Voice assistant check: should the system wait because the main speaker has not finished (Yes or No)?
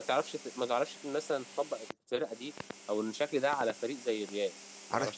No